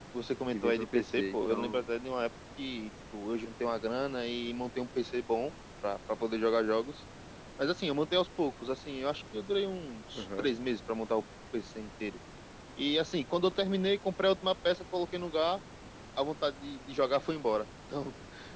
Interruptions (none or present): present